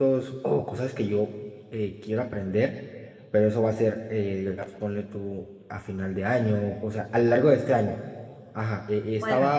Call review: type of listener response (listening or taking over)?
listening